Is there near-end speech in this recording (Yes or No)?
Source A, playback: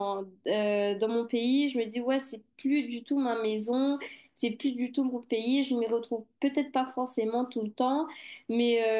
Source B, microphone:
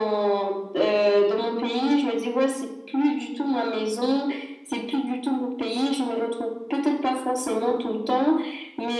No